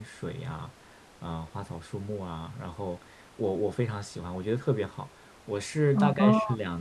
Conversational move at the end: listening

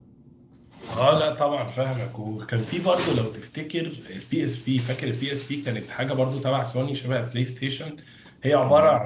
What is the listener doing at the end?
listening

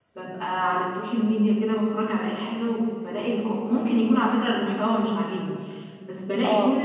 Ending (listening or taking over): listening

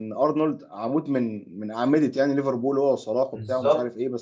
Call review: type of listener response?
listening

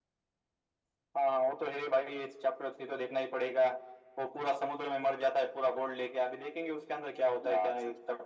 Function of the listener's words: taking over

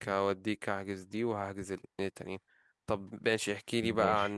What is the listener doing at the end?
listening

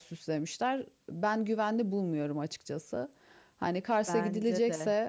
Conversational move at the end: listening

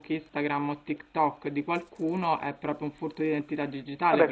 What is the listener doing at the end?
taking over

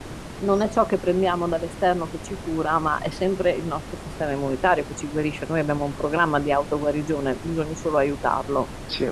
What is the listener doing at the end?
listening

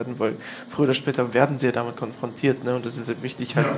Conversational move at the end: listening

